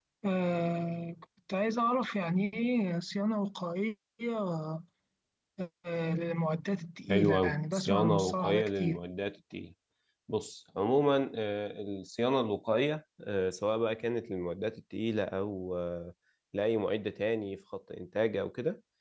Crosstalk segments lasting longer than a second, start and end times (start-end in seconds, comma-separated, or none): 7.1-9.0